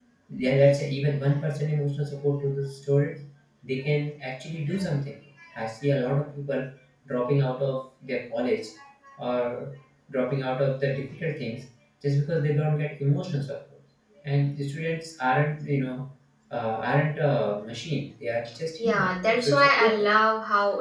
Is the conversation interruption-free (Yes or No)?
No